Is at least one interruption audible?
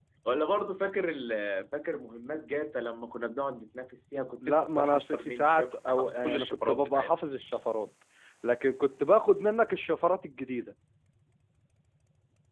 Yes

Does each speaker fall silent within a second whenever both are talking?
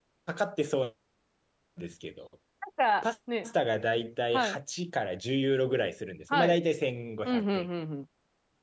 Yes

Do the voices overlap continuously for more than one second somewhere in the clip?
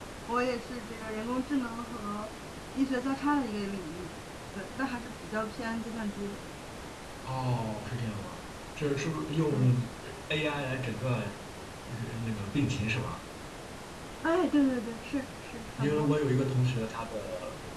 No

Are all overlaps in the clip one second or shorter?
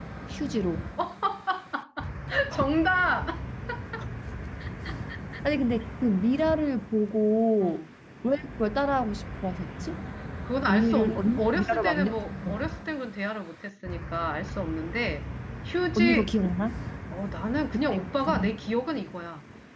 No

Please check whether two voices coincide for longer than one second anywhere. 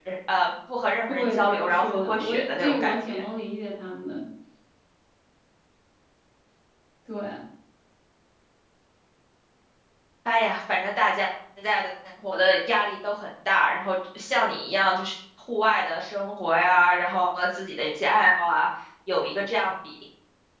Yes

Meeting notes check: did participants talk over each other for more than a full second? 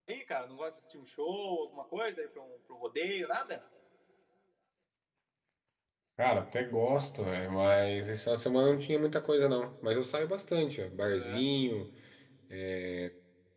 No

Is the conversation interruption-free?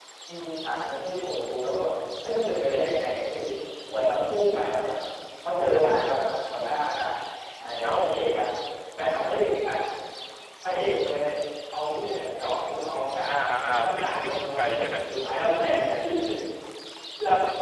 No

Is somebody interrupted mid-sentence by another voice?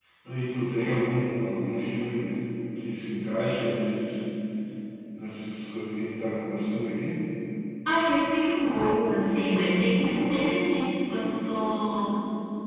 No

